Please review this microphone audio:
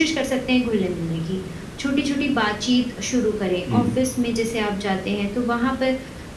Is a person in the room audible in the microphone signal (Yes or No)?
Yes